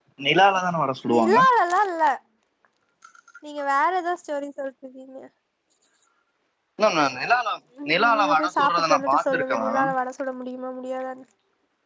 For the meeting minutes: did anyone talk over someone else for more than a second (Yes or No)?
Yes